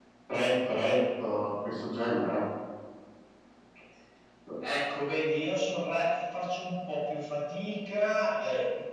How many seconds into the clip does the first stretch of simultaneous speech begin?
none

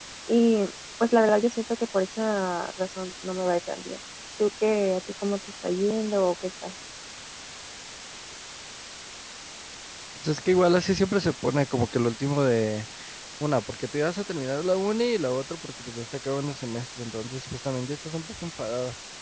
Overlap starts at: none

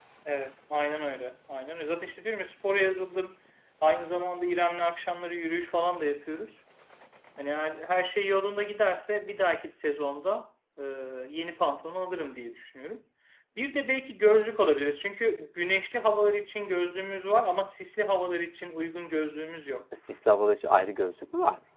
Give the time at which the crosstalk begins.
none

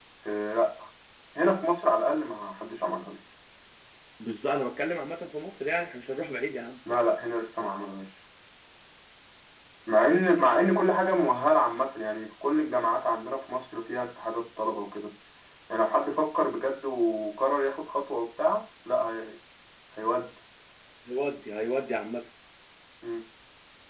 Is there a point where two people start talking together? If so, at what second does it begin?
none

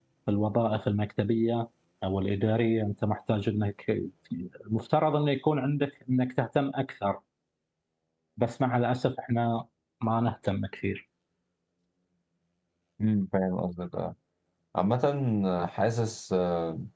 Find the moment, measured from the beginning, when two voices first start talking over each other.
none

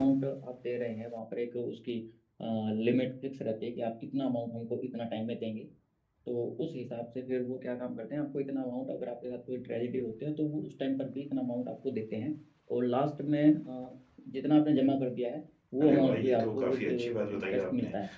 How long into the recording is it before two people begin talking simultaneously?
15.8 s

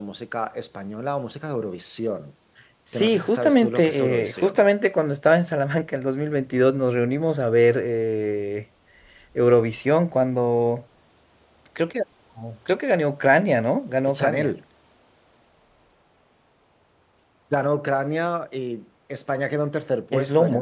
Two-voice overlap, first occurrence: 2.9 s

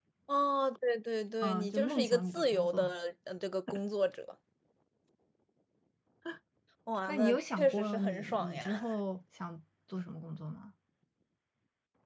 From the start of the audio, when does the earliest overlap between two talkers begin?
1.4 s

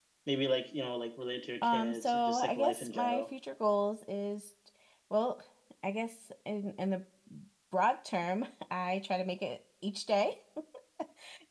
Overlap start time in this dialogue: 1.6 s

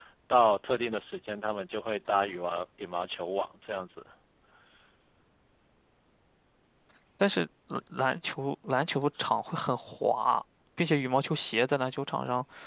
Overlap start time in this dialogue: none

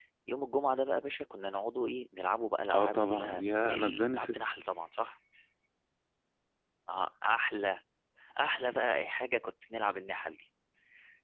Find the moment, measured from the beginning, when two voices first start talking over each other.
2.6 s

